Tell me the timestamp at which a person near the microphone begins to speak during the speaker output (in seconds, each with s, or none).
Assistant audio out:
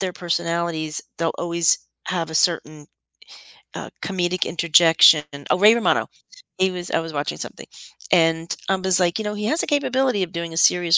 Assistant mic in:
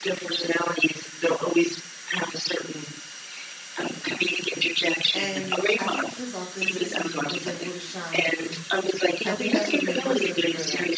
5.1 s